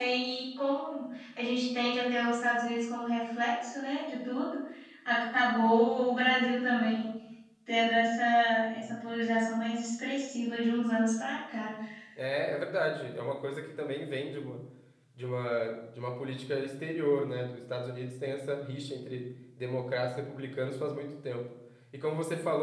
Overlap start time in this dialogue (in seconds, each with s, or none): none